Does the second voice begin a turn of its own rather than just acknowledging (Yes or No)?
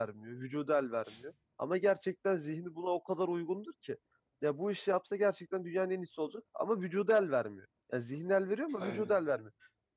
No